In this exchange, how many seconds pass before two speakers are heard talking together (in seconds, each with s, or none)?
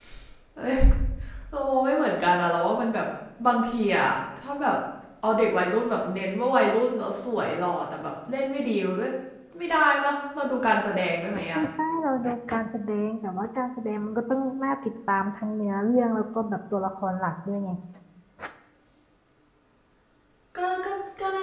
none